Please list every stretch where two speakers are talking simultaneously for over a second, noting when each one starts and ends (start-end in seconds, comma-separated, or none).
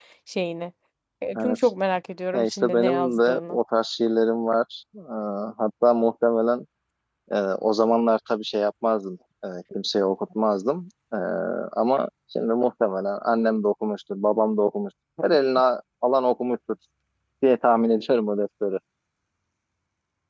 2.3-3.6